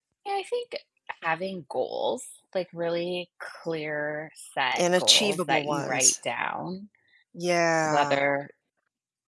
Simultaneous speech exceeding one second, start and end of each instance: 4.8-6.1

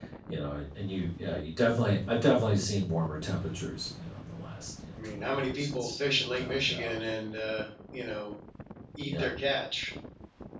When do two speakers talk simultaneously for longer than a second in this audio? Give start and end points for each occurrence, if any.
5.0-7.0

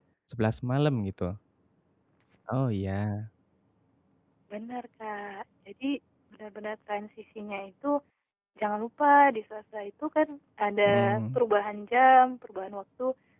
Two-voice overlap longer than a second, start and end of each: none

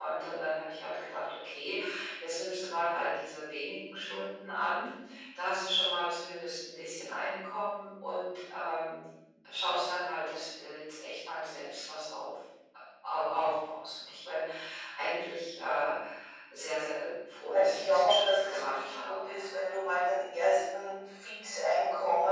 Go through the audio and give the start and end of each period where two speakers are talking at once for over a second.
17.5-19.3

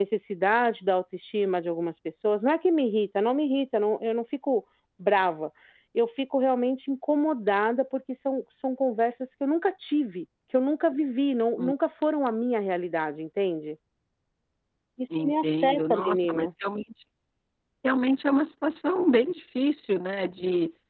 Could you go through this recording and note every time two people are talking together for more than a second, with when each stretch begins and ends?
15.2-16.5

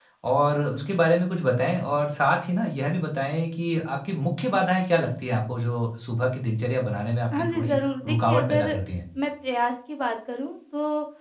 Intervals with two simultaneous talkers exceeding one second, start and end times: 7.3-8.8

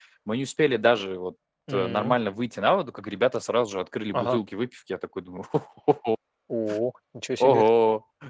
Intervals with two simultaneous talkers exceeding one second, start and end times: none

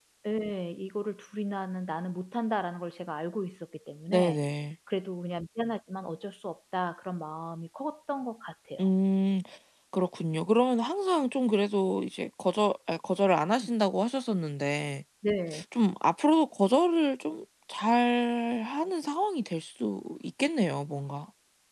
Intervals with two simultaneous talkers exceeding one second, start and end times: none

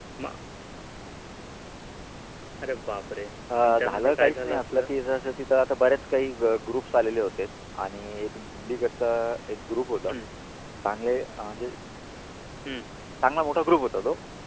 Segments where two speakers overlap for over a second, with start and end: 3.6-4.8

